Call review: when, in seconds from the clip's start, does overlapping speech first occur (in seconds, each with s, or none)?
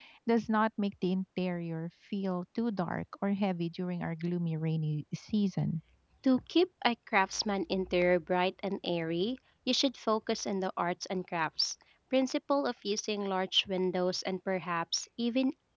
none